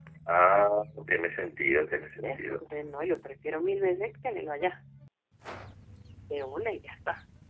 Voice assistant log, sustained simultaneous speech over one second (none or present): none